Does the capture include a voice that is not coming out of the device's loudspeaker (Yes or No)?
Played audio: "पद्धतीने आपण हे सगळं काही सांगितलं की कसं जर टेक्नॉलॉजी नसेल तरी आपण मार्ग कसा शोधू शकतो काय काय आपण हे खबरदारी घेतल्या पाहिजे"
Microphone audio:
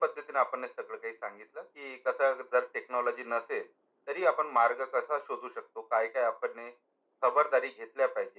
No